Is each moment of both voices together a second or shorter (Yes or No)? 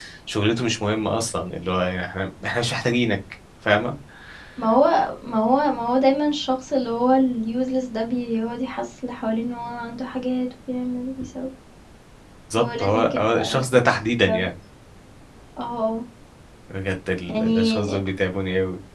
No